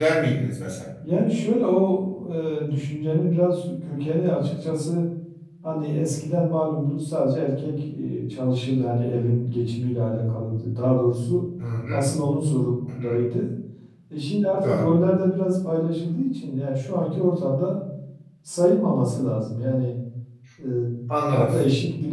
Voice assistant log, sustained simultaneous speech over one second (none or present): none